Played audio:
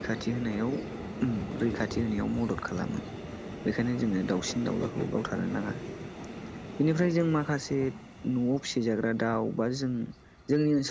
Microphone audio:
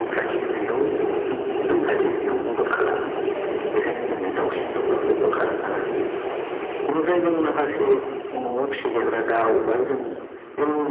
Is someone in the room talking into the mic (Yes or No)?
No